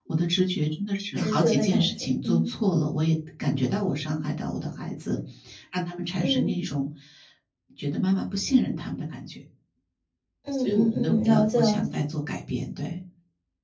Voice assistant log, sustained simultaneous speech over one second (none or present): present